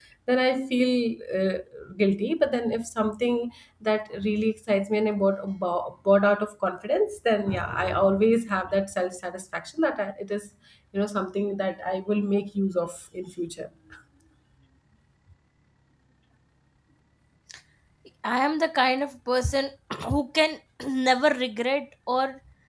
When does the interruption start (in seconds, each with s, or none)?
none